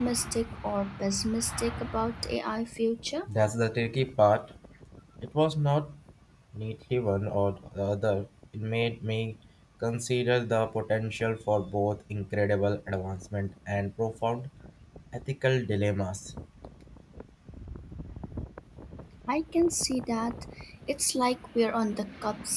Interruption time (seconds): none

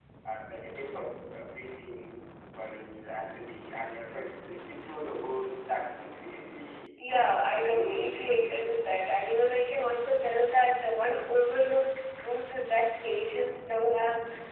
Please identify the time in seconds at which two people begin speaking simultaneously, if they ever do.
7.5 s

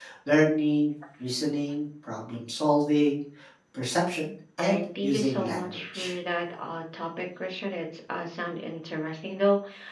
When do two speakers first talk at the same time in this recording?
4.6 s

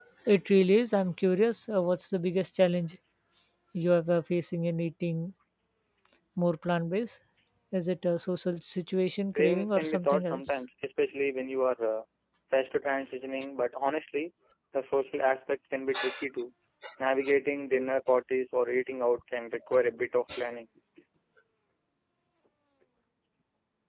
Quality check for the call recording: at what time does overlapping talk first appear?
9.4 s

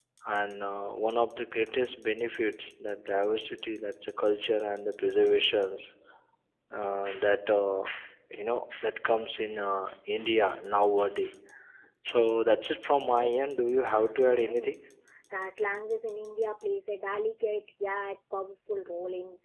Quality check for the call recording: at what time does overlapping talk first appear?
13.1 s

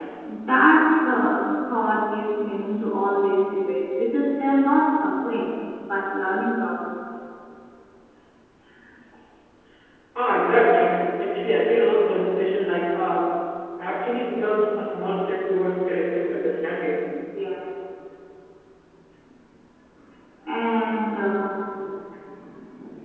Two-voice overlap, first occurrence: none

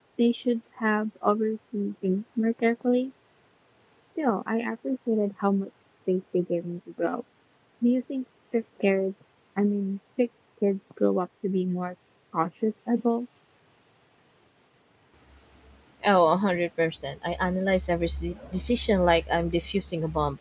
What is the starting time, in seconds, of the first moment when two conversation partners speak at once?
none

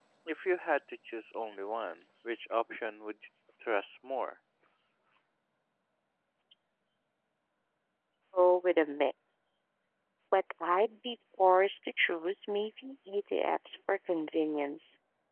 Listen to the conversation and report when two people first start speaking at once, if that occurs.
none

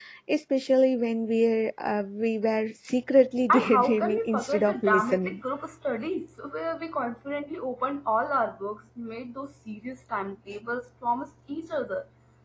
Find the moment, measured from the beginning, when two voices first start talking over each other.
3.5 s

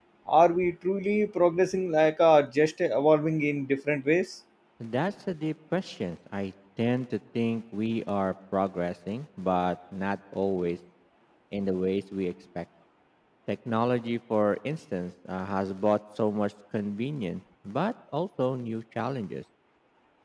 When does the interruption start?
none

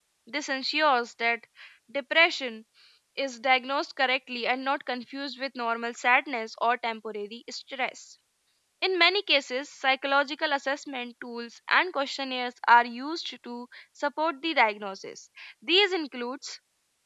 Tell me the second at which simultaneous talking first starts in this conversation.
none

